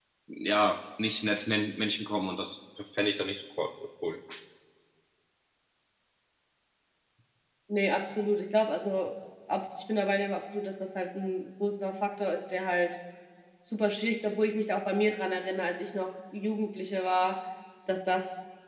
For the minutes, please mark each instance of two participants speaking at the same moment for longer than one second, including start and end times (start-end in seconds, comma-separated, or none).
none